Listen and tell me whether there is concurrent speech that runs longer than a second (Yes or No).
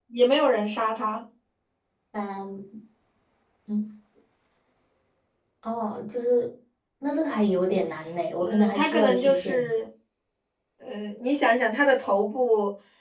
Yes